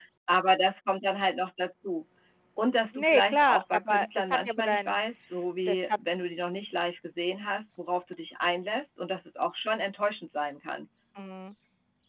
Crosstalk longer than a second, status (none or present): present